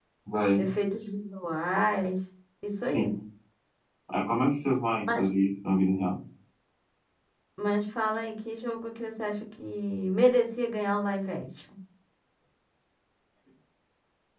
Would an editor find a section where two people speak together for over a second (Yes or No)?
No